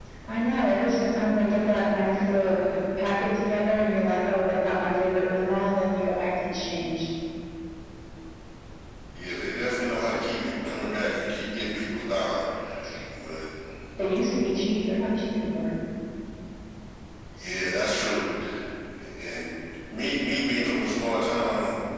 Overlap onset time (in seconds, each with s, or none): none